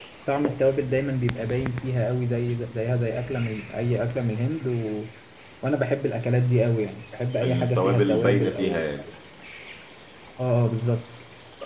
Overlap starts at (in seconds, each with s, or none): 7.4 s